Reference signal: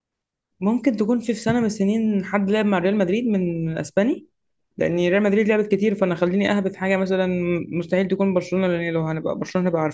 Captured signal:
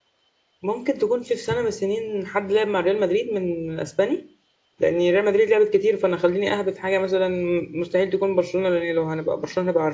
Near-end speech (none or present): none